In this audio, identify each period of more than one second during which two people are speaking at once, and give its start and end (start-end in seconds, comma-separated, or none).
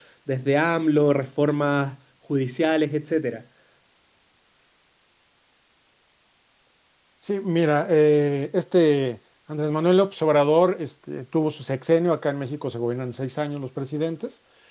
none